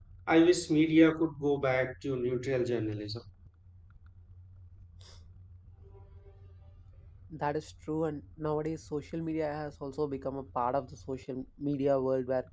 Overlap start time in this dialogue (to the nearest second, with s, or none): none